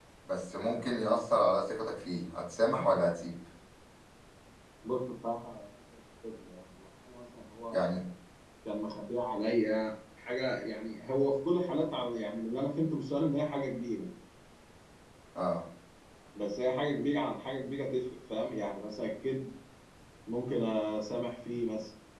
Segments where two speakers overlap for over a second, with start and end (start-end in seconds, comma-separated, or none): none